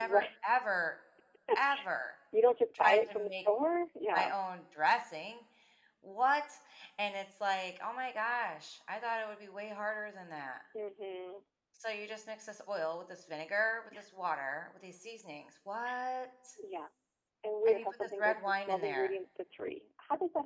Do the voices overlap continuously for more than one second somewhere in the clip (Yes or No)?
Yes